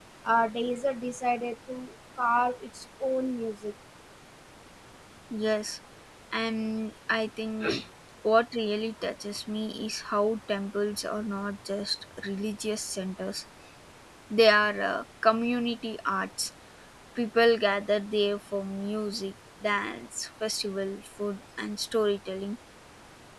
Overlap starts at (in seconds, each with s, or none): none